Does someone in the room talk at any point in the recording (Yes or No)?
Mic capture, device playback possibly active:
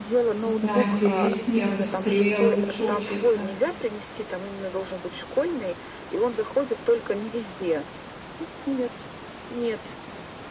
Yes